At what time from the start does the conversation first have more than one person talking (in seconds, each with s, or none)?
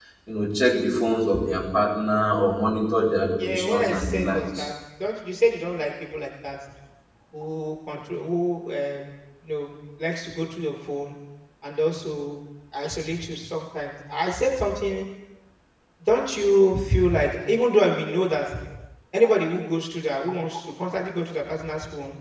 3.4 s